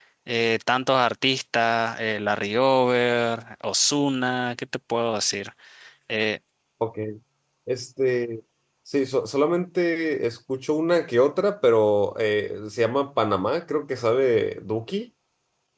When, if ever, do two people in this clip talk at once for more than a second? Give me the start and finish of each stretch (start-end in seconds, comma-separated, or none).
none